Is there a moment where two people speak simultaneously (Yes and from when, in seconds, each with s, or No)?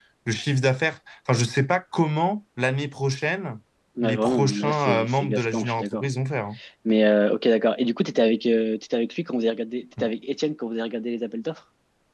Yes, from 4.0 s